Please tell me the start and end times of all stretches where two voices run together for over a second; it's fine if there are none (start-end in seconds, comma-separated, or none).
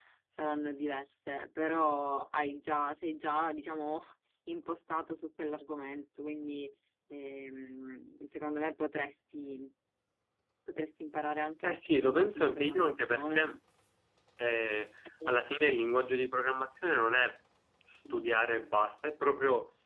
11.6-13.4